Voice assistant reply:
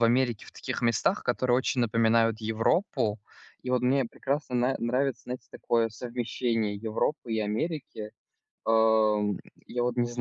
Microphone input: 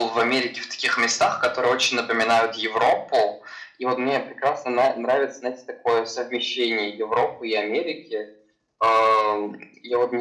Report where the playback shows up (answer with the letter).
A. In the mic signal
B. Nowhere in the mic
A